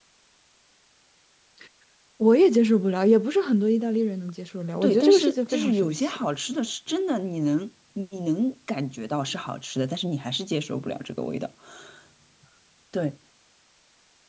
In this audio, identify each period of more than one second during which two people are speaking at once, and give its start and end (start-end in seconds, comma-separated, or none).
4.8-6.2